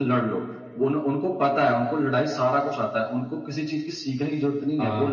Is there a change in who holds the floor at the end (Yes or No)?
Yes